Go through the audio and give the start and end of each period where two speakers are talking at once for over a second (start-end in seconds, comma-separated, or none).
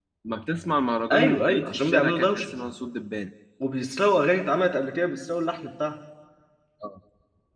1.1-2.5